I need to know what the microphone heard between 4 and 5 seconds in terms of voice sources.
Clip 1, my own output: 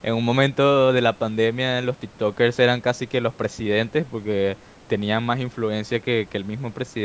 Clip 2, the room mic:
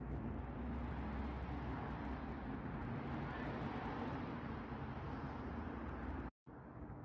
neither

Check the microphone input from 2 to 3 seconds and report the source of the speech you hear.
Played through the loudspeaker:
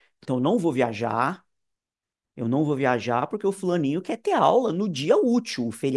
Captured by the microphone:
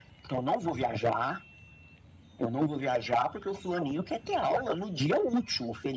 echo only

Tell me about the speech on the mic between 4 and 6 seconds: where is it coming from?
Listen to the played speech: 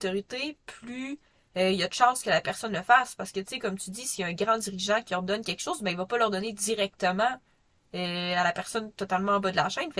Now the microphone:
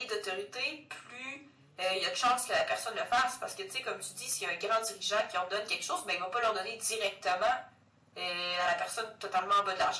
echo only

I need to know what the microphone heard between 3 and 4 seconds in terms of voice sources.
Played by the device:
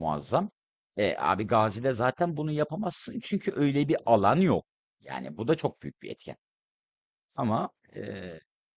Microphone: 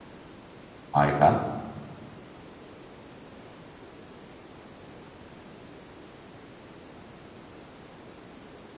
neither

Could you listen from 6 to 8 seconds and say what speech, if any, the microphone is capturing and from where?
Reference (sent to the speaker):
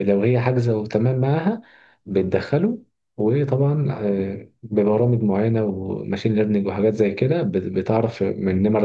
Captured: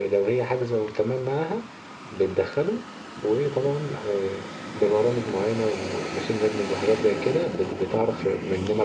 echo only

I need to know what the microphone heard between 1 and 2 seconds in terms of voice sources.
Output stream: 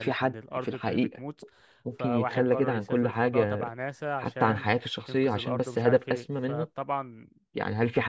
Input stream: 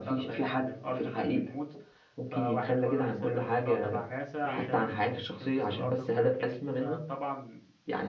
echo only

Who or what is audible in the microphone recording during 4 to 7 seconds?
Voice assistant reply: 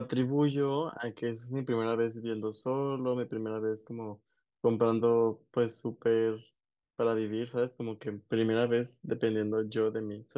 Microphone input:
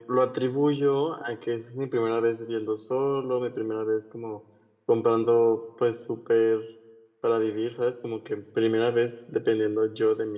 echo only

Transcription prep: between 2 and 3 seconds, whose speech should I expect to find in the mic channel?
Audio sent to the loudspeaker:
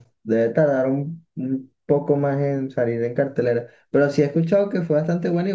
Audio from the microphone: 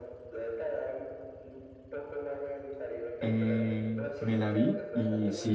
echo only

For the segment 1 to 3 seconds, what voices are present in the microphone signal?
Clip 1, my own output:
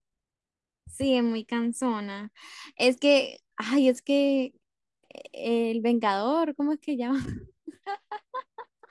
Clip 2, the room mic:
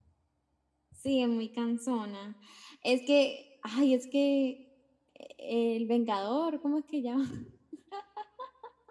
echo only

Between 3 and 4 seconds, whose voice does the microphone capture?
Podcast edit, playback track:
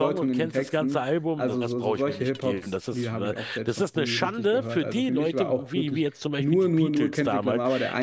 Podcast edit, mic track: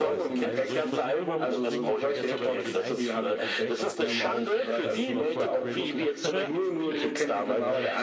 both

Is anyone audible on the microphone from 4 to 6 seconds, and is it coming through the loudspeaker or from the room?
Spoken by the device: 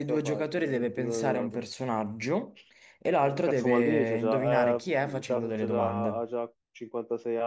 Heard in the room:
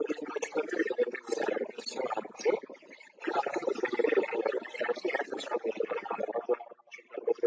echo only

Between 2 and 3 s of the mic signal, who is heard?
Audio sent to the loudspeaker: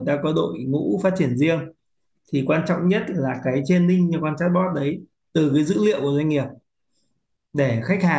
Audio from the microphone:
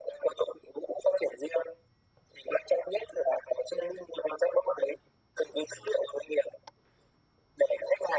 echo only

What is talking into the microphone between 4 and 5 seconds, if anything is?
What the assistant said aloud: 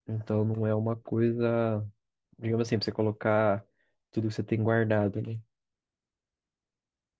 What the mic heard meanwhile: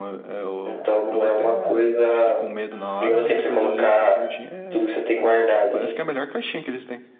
both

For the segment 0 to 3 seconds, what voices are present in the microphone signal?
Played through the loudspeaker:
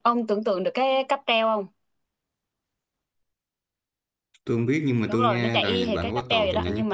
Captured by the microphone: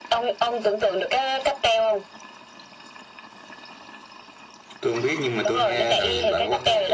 echo only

